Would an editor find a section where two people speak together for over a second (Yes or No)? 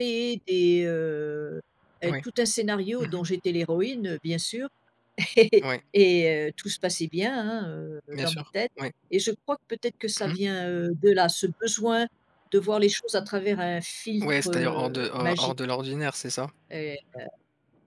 Yes